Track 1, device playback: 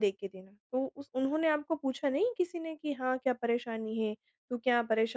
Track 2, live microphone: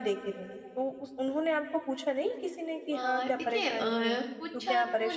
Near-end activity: present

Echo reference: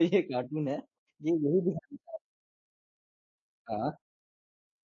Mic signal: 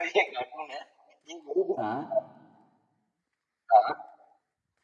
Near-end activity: present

